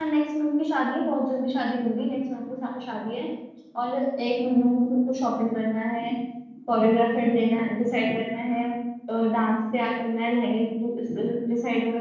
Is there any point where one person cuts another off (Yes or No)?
No